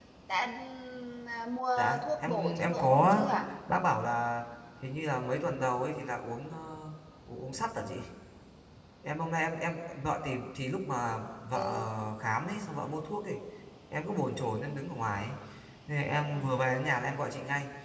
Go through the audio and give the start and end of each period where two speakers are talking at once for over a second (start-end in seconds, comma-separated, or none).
1.8-3.2